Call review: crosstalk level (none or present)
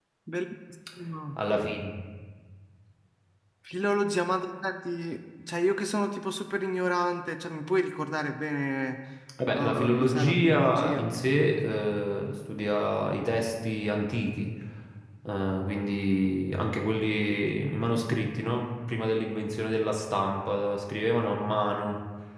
present